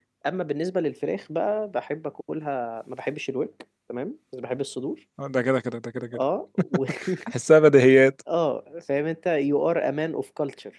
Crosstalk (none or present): none